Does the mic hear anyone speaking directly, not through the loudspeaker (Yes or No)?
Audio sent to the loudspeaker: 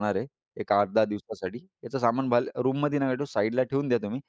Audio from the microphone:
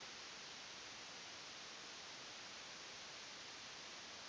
No